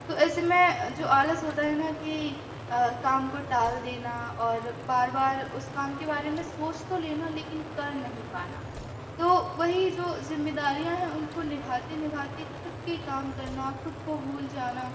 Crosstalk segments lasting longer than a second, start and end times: none

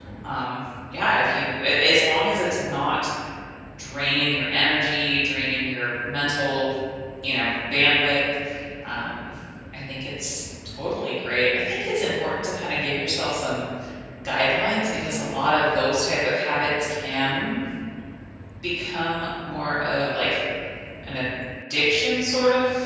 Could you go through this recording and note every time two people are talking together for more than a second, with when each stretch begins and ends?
none

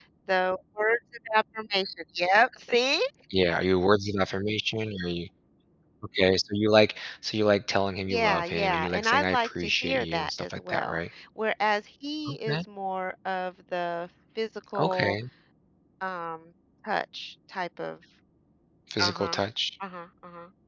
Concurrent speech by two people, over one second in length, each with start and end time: 8.1-11.0

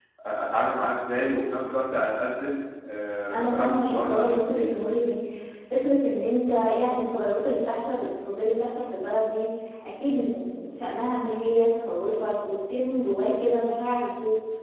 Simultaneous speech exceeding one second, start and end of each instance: 3.3-4.8

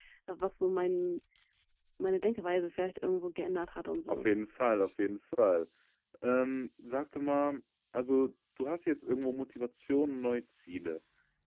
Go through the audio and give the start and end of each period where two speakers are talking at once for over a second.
none

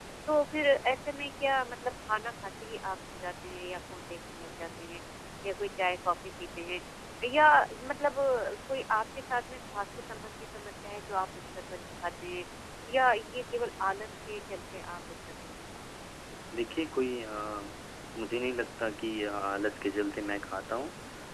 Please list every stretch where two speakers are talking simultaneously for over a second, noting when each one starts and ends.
none

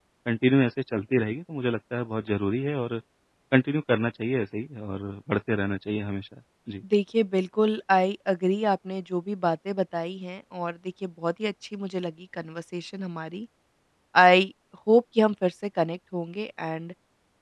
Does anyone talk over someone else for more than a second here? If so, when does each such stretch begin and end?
none

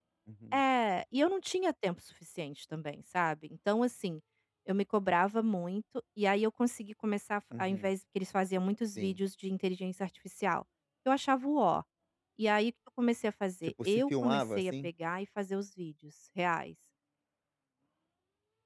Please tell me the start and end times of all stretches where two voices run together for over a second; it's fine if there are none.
13.6-14.9

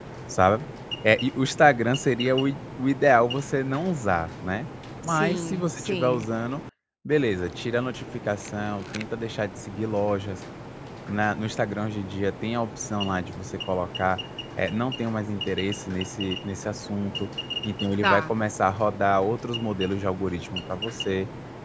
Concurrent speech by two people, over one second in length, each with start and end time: 5.0-6.2

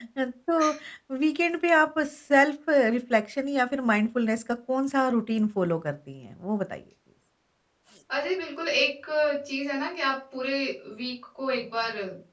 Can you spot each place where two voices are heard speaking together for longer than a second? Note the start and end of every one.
none

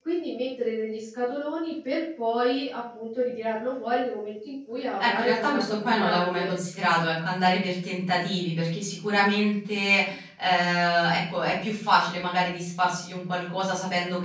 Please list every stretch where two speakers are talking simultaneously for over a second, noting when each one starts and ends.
5.0-6.6

